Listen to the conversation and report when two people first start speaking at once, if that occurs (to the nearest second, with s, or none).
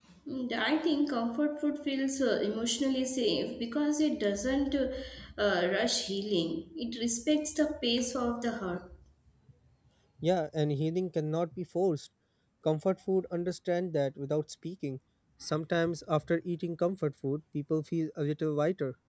none